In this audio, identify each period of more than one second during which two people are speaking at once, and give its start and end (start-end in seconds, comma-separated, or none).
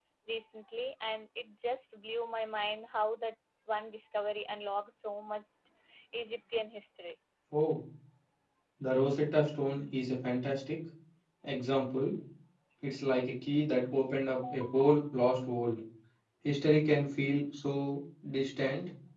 none